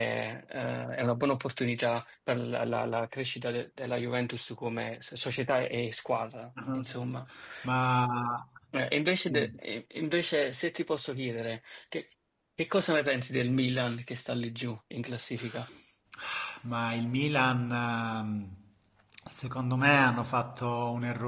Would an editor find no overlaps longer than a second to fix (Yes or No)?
Yes